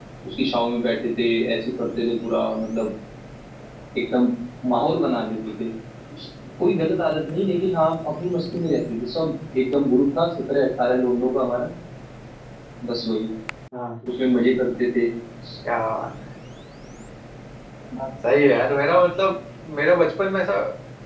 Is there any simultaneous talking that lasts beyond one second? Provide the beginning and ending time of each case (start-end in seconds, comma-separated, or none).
none